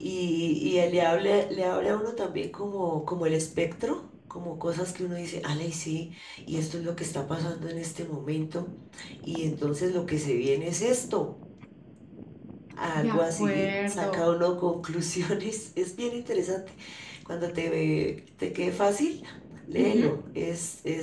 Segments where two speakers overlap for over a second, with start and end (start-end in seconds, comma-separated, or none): 13.0-14.2